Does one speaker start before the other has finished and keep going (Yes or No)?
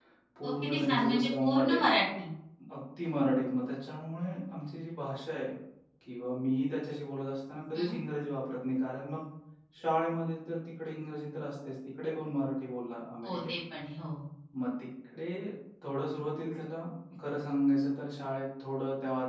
Yes